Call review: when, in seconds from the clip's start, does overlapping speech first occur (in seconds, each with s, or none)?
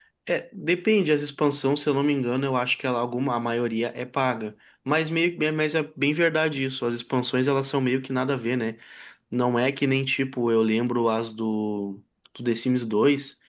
none